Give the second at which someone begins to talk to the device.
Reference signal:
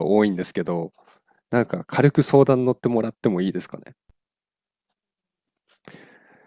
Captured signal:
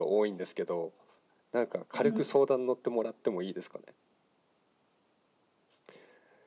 1.9 s

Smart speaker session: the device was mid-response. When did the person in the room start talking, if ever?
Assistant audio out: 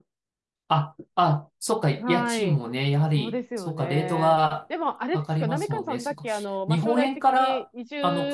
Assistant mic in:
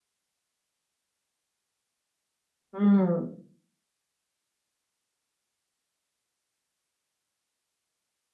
2.7 s

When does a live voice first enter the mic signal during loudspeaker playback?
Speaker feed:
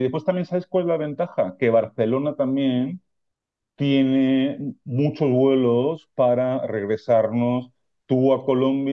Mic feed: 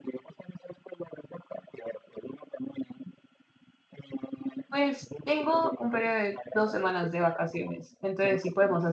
4.7 s

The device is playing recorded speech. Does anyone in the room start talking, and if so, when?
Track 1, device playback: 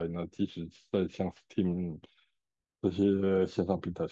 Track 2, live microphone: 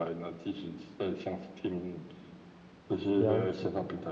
3.1 s

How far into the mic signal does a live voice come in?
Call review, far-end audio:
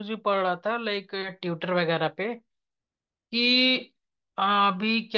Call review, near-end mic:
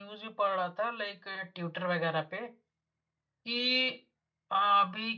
none

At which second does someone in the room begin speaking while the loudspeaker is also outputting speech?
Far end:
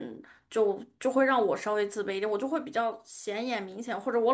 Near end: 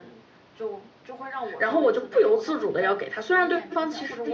1.6 s

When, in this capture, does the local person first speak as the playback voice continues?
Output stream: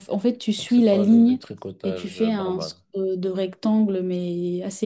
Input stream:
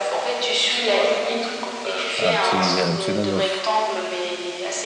2.2 s

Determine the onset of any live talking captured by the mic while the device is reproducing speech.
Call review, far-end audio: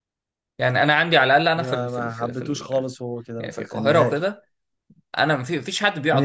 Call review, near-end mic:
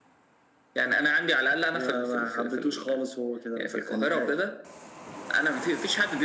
none

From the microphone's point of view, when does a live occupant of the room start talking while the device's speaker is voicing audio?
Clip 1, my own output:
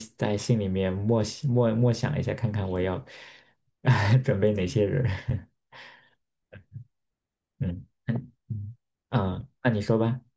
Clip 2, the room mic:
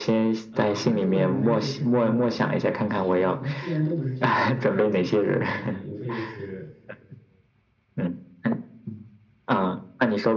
0.5 s

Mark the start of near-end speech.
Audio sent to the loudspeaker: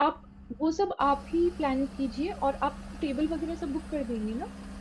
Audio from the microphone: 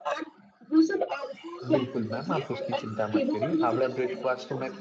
1.7 s

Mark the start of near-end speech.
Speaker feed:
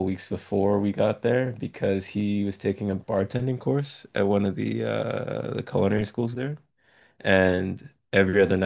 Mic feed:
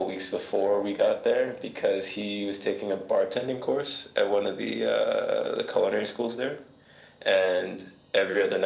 none

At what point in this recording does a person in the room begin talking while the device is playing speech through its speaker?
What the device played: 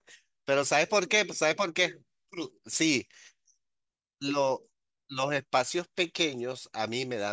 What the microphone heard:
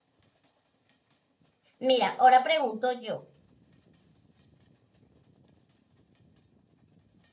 1.8 s

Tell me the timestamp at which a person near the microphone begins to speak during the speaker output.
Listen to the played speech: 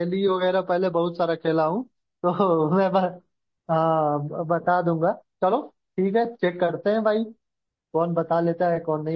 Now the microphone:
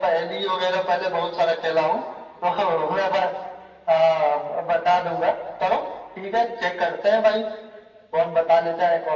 none

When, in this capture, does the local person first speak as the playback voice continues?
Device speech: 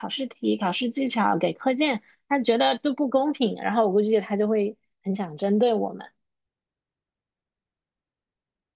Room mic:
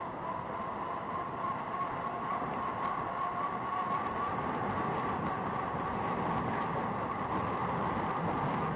none

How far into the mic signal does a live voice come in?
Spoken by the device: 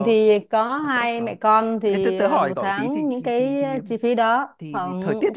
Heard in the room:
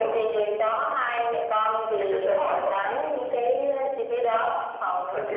none

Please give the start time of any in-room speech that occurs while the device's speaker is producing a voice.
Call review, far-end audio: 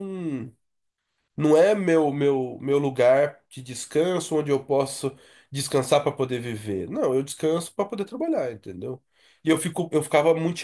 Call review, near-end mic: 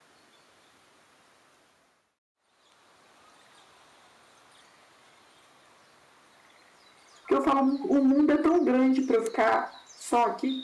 7.2 s

